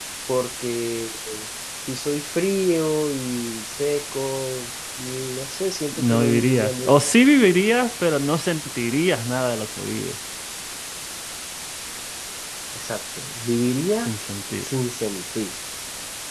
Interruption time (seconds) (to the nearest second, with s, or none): 6 s